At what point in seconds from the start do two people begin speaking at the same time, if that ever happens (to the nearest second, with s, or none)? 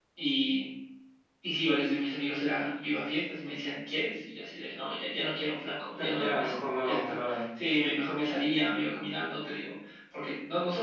6 s